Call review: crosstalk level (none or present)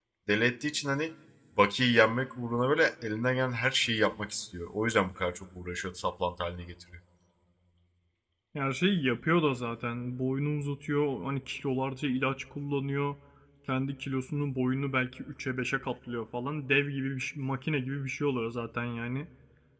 none